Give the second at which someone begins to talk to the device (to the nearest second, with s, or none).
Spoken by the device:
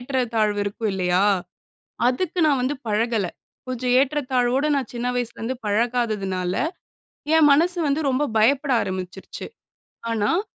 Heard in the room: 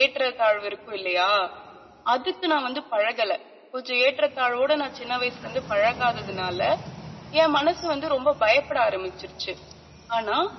none